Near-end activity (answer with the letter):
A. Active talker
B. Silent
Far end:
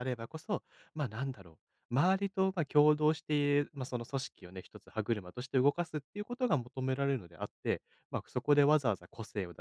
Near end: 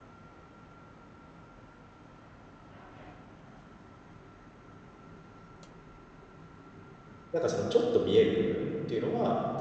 A